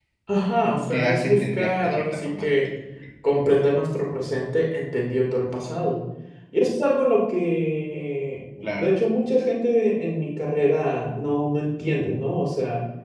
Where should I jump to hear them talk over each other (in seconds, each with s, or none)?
0.9 s